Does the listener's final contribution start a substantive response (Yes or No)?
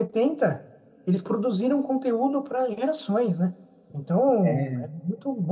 No